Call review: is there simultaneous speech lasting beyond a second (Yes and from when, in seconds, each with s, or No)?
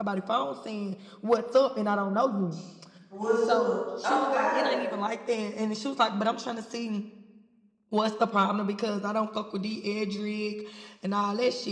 Yes, from 3.5 s